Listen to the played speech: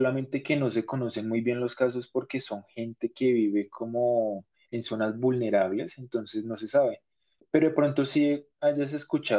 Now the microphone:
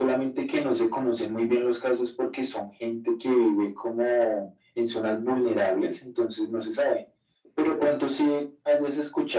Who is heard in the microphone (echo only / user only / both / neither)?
echo only